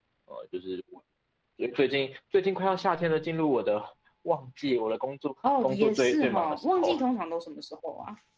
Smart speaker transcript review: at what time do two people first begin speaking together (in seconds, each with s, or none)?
5.4 s